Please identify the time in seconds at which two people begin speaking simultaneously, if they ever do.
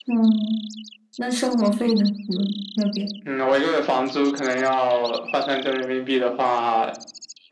none

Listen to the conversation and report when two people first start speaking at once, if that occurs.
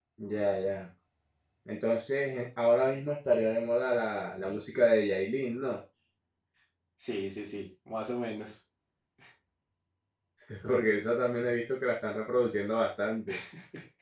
none

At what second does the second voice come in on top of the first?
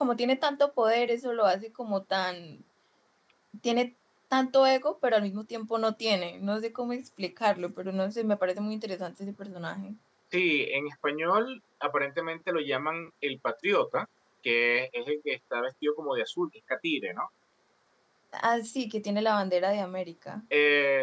none

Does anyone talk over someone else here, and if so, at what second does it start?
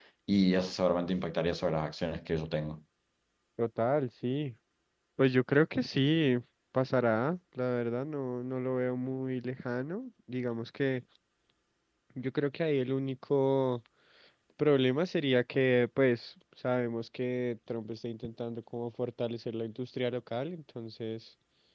none

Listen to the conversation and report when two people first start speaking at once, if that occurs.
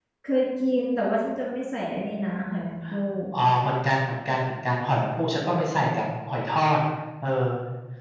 none

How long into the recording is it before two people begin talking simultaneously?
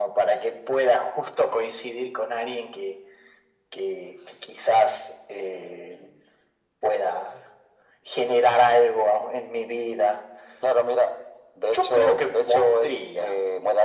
12 s

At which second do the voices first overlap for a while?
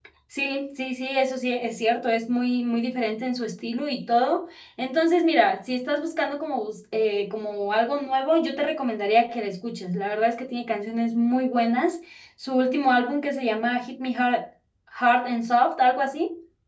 none

